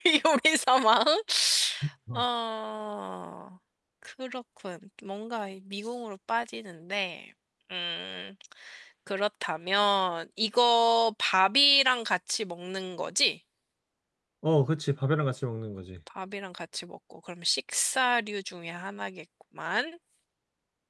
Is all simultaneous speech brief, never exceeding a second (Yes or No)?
Yes